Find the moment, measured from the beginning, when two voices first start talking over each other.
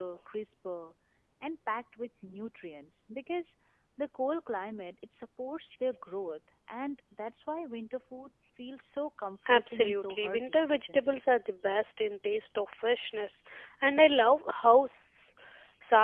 9 s

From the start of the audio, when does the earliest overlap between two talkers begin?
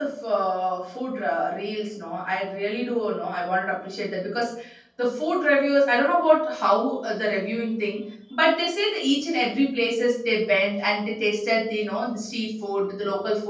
none

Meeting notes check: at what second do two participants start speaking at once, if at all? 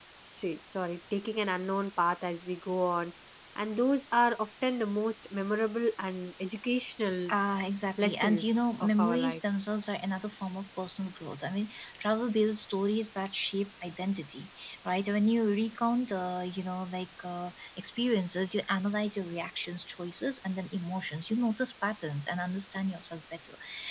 8 s

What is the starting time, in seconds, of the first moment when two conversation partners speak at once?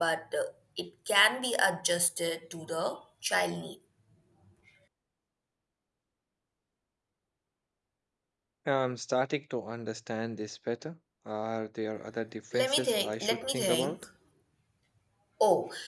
13 s

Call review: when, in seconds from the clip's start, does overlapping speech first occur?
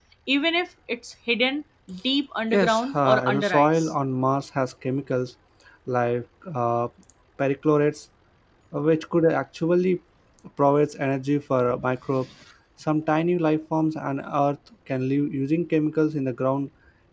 3 s

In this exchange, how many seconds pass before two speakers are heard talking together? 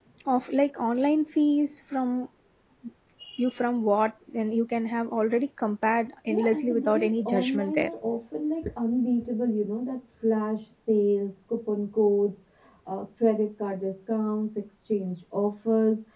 6 s

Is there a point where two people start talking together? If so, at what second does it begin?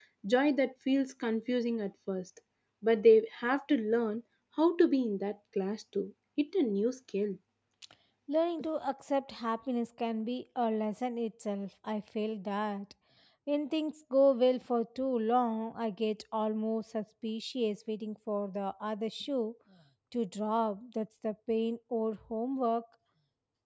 none

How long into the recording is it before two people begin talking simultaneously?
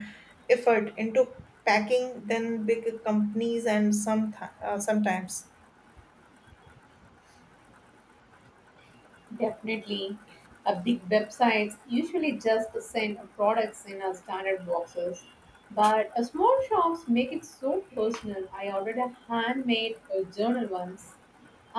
none

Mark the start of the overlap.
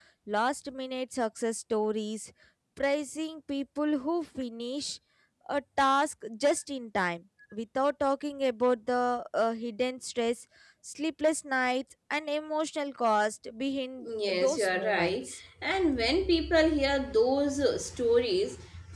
14 s

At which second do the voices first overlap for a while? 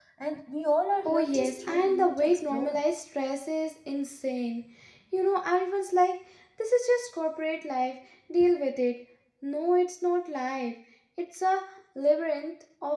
1 s

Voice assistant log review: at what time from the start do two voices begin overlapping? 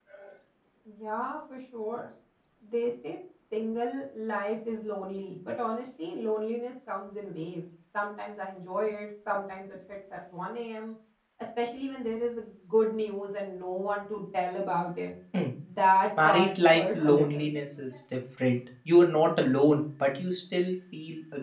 16 s

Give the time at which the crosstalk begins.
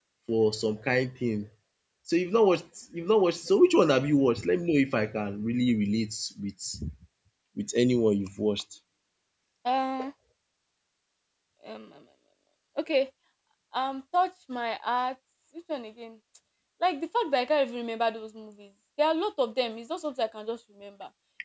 none

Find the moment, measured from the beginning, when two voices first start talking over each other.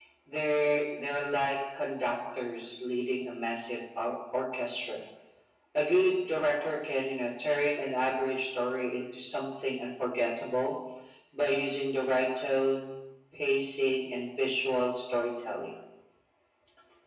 none

